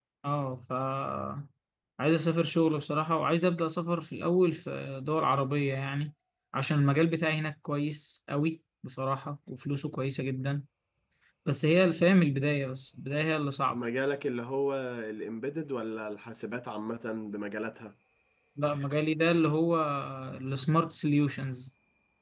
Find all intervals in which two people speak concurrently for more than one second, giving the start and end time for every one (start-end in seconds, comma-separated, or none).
none